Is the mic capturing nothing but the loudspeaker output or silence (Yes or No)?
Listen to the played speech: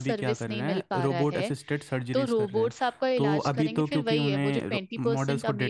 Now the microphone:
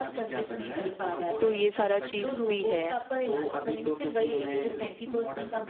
No